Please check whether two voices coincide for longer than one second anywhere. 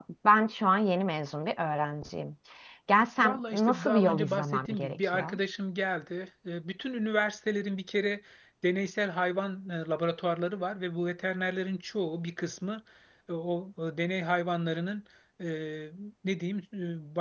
Yes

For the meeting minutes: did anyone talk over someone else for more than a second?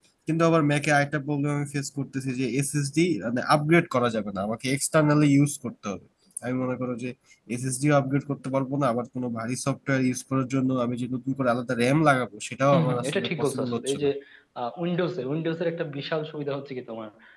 Yes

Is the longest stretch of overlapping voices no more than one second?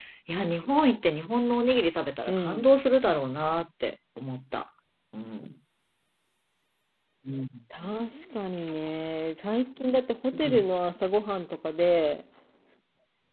Yes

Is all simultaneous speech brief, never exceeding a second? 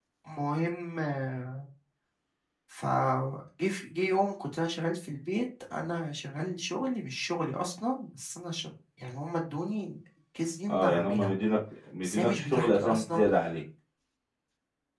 No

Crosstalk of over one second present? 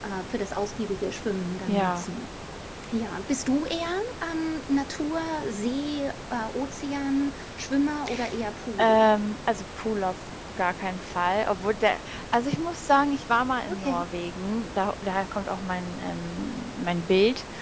No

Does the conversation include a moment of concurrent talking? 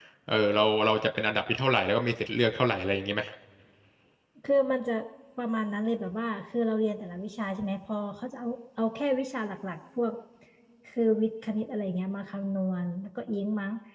No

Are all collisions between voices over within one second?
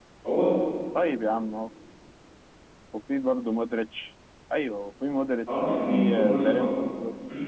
No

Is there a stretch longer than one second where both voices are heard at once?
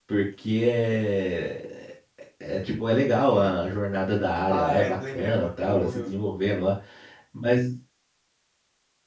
Yes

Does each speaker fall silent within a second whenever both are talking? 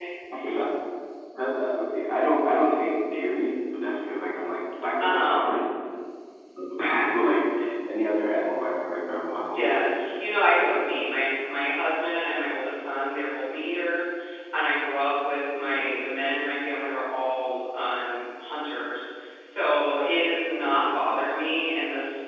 Yes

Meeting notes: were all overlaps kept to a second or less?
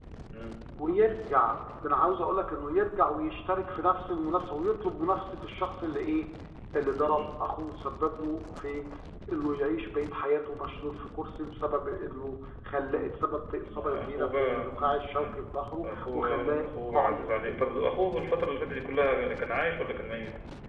No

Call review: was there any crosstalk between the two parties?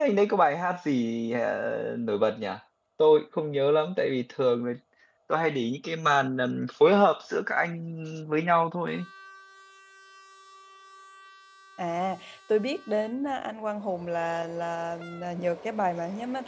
No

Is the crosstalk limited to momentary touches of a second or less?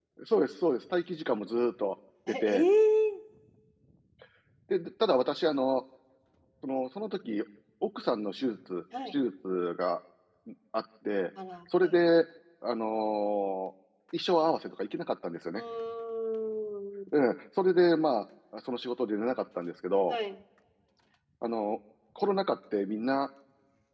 Yes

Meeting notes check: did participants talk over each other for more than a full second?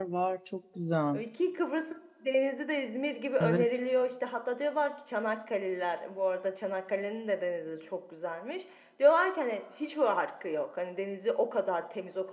No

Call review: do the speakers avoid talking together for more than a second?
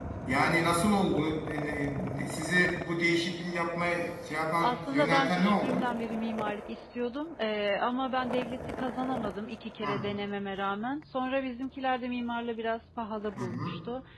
No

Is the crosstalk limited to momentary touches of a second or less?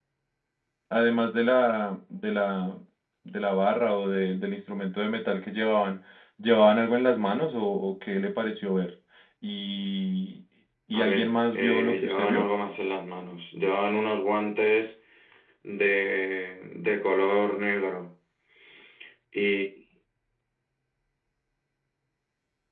No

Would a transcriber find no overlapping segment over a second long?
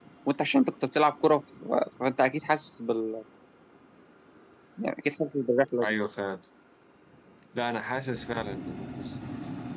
Yes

